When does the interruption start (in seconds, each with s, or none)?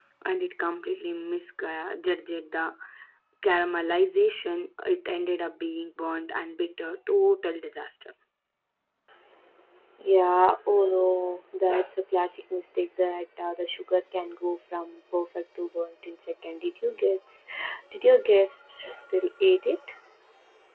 none